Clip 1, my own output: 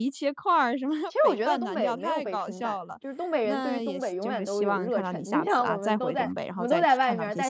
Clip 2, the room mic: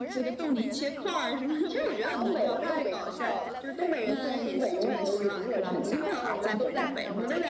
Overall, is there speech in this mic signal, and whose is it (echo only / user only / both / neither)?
both